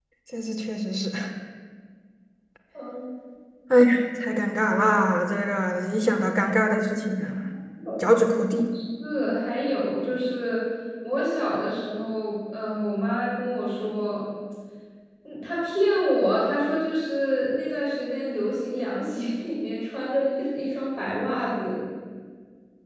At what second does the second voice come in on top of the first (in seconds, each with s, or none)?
none